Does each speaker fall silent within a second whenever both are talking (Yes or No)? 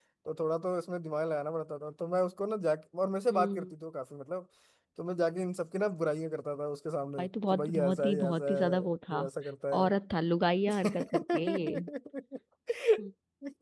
No